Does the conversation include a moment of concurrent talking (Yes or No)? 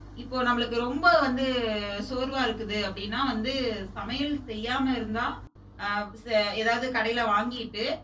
No